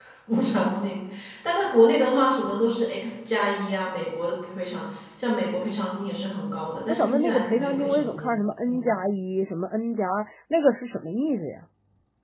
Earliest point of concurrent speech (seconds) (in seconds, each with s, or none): 6.9 s